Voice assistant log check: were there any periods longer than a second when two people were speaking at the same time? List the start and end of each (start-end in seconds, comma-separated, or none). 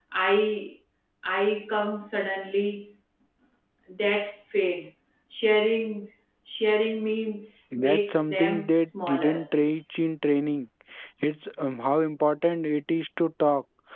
7.8-9.4